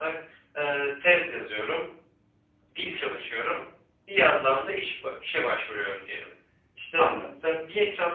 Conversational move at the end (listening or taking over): listening